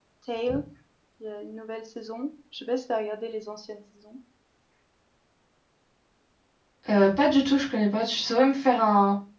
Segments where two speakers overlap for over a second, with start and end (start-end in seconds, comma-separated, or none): none